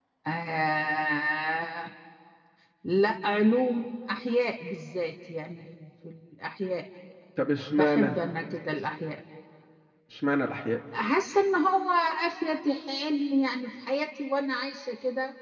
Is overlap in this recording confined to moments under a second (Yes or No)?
Yes